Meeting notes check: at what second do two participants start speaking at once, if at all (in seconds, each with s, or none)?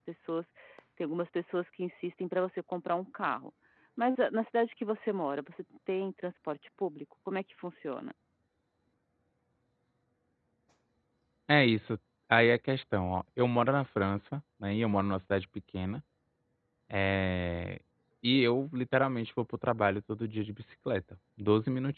none